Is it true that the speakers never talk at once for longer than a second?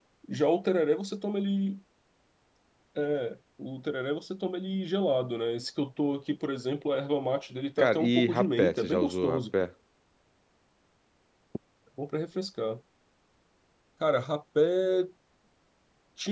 No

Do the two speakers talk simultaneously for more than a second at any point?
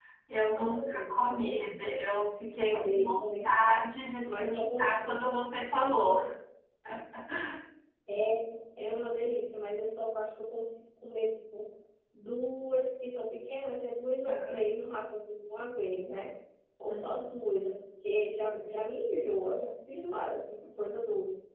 Yes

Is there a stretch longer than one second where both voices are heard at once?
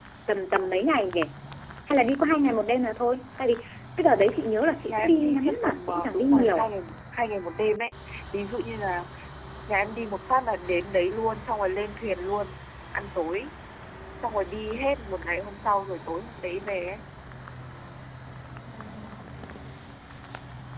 Yes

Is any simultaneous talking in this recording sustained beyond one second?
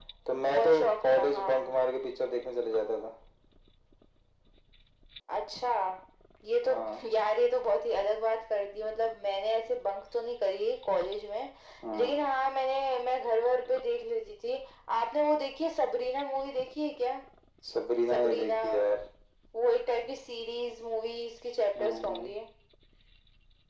Yes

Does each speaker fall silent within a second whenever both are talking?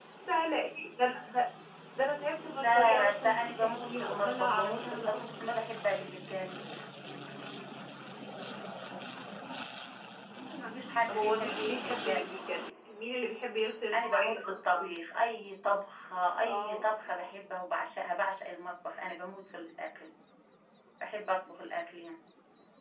No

